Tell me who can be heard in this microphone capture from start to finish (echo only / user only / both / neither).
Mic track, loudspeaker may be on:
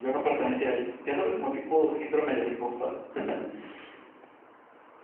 echo only